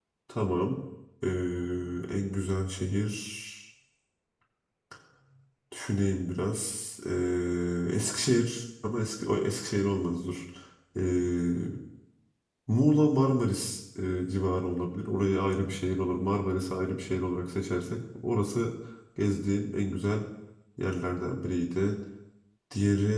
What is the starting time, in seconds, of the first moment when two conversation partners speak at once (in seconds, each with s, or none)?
none